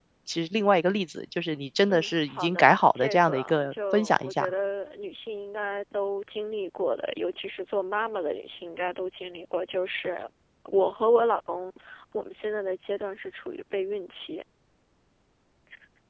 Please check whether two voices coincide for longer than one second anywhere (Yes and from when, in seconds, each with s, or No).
Yes, from 1.9 s